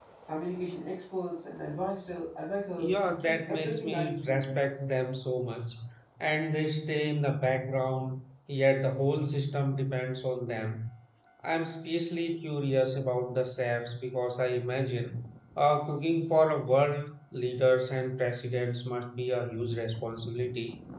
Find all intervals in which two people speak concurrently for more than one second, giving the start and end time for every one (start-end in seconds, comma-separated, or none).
2.8-4.6